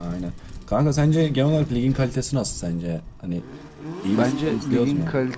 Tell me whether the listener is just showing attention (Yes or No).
No